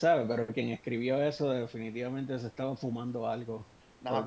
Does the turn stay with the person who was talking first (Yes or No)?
No